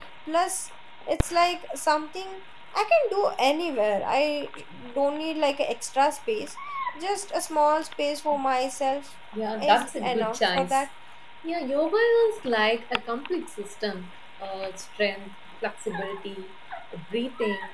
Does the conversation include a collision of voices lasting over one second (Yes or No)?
Yes